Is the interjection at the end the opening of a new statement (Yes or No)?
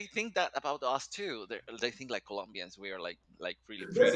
Yes